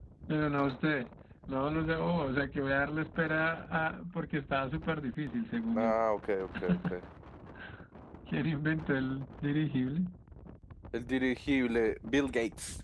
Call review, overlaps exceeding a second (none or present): none